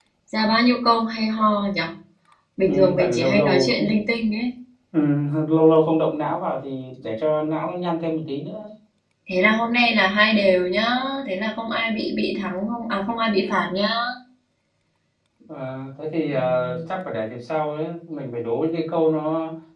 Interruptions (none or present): present